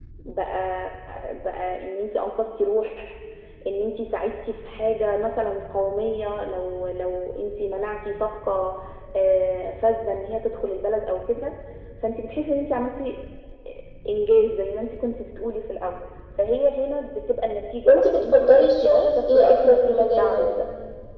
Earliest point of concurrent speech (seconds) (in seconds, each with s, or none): 17.9 s